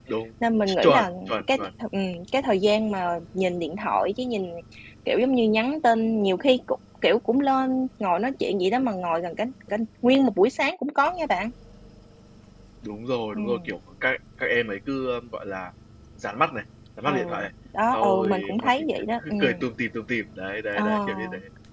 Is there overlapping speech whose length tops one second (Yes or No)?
Yes